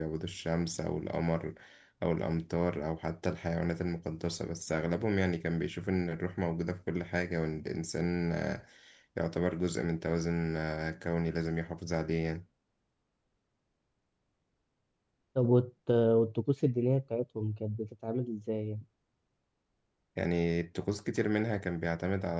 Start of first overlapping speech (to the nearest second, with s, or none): none